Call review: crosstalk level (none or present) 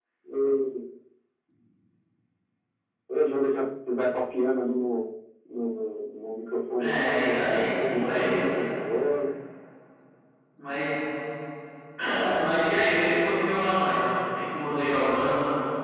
present